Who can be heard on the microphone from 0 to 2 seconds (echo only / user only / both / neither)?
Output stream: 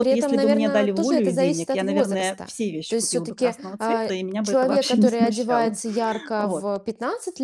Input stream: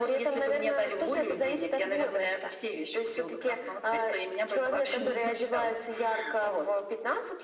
echo only